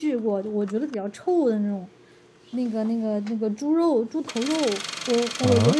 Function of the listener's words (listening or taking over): listening